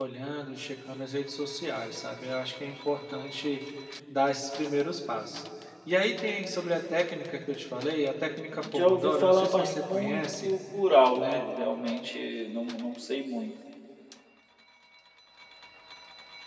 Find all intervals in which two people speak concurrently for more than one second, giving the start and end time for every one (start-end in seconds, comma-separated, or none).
8.8-10.5